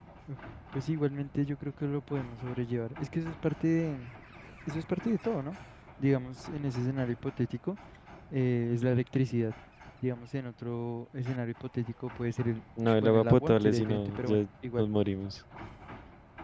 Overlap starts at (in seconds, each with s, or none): 12.8 s